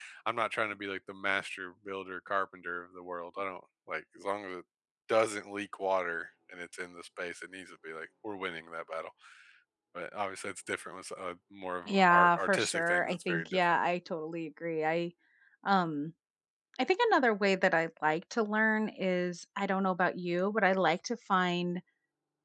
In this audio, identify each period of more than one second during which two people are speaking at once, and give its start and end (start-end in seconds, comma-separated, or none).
11.9-13.8